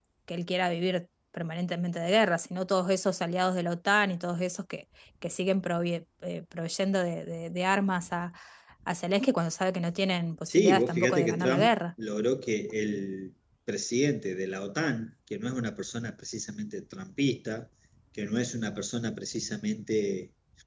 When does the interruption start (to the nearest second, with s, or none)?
10 s